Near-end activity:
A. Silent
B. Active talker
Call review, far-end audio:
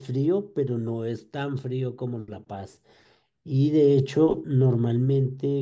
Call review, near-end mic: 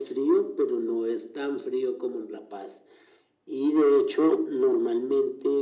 A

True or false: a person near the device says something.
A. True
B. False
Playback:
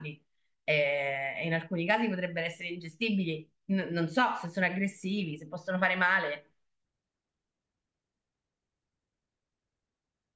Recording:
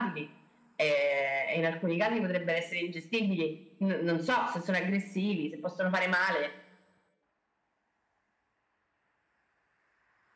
B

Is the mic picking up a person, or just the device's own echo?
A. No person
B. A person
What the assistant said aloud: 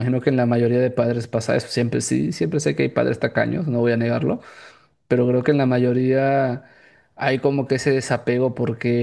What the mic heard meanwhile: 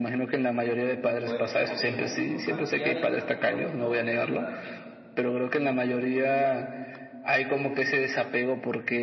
B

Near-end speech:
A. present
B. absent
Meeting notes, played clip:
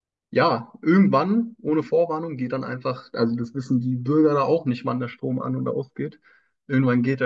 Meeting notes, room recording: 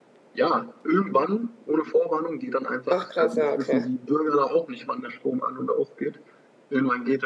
A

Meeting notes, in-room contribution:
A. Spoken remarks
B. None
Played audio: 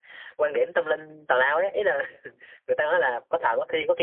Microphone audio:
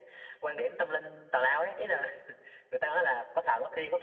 B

